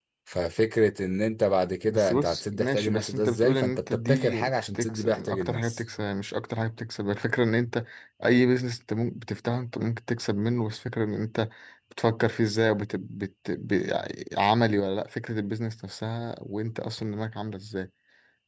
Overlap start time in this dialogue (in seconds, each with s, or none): 1.9 s